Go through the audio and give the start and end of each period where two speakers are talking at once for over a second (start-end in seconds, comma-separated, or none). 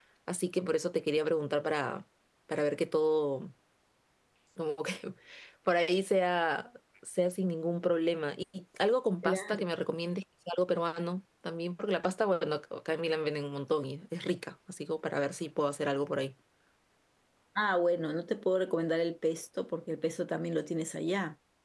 none